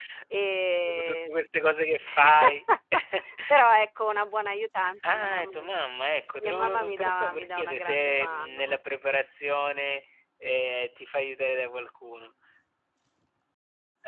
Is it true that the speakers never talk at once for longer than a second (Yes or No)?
No